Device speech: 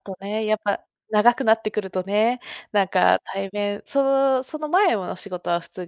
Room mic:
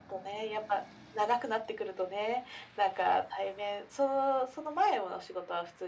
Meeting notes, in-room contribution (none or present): none